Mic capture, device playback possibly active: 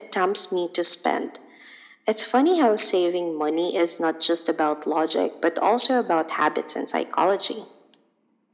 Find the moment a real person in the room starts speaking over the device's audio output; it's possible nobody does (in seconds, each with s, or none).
none